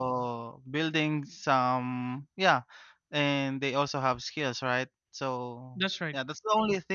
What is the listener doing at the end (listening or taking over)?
listening